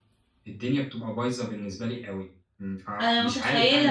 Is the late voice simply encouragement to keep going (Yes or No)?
No